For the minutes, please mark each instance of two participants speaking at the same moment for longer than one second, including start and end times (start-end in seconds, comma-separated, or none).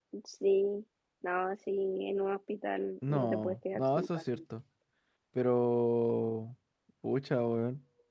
3.1-4.4